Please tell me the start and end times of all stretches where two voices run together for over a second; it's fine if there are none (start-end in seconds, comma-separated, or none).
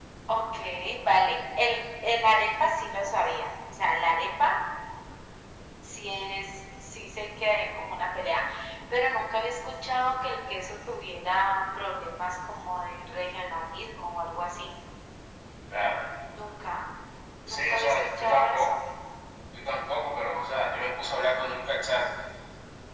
17.5-18.7